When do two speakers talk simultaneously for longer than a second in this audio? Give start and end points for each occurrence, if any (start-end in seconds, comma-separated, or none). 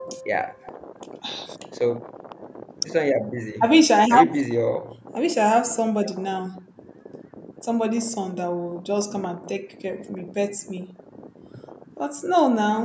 none